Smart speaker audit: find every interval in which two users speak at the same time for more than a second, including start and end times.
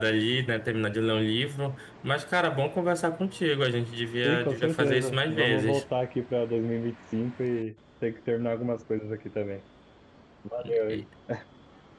4.2-5.8

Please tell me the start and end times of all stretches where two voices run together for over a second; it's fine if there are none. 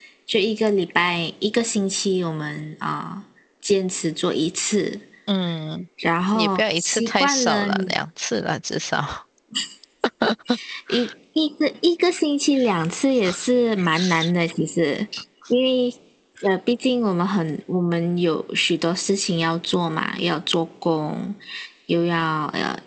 6.3-7.7

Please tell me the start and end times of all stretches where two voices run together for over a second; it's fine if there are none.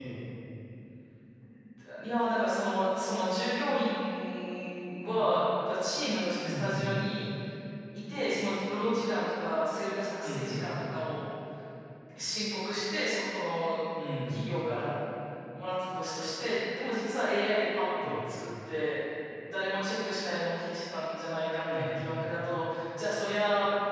none

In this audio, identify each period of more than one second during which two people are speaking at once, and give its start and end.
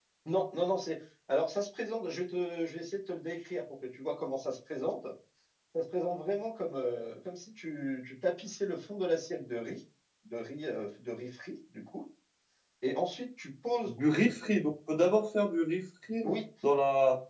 none

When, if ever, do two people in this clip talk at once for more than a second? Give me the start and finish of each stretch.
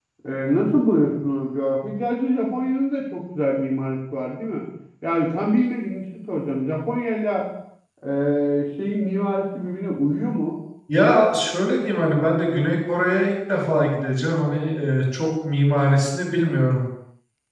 none

